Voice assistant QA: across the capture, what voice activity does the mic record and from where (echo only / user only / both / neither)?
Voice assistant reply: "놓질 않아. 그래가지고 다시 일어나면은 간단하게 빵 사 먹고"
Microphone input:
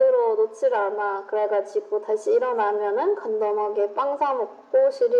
echo only